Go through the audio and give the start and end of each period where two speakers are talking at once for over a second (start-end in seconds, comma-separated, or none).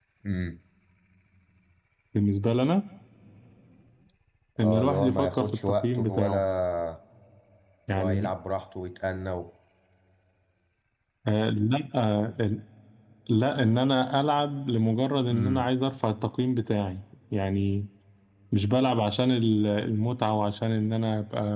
4.6-6.4